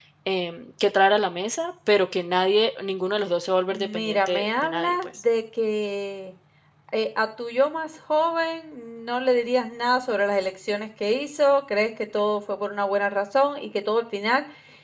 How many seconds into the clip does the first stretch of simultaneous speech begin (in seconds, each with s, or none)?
3.7 s